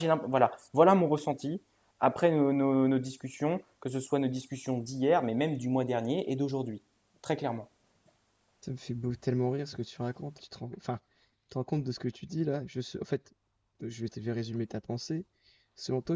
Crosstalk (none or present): none